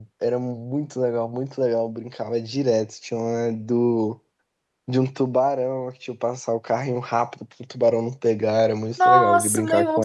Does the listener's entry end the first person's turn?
Yes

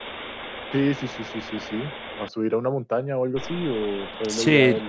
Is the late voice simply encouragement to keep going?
No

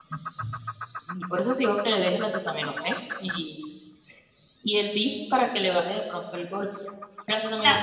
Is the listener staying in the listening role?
No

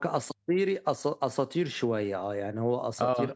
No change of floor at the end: Yes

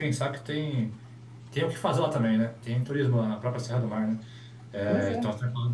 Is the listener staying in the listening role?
Yes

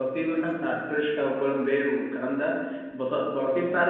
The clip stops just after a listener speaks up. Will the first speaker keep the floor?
Yes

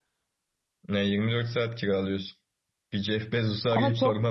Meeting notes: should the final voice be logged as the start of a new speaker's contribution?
No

